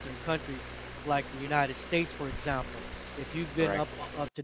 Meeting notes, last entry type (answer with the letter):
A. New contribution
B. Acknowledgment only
B